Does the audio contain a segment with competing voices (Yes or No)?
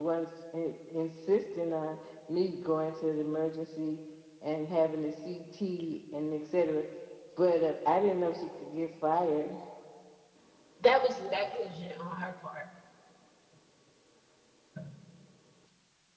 No